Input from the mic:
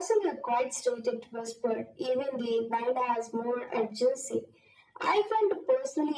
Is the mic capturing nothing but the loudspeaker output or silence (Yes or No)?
Yes